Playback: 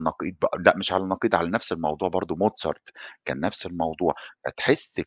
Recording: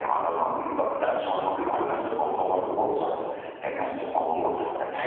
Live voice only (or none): none